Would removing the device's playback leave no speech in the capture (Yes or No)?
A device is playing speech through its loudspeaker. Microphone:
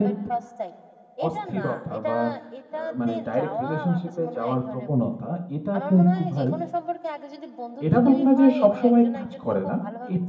No